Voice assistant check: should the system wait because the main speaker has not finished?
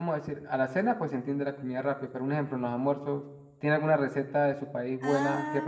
No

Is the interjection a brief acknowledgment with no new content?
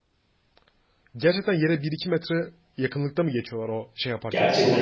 No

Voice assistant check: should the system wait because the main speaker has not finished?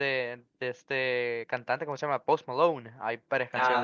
No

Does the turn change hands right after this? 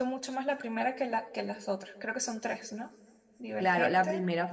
Yes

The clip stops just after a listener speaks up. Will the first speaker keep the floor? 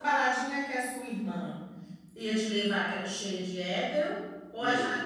No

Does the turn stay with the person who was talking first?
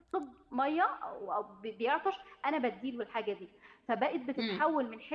Yes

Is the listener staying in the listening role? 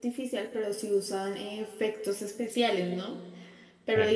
Yes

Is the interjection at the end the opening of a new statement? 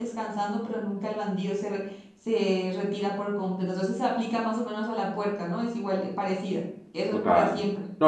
Yes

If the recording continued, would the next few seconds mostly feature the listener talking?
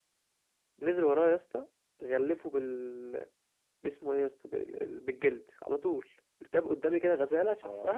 No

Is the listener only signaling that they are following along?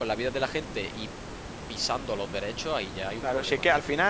No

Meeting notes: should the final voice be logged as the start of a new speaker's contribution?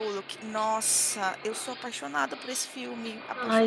Yes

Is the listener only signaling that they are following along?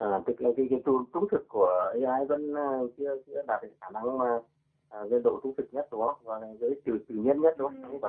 No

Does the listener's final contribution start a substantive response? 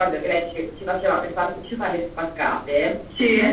No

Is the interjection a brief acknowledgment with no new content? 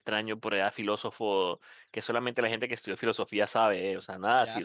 No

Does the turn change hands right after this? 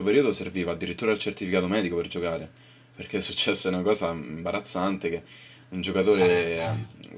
No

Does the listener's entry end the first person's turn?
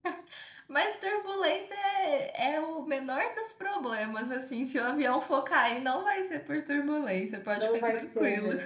Yes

